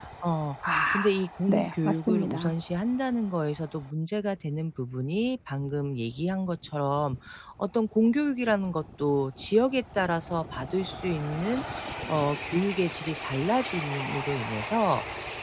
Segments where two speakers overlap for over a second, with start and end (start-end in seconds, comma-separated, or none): 0.7-2.5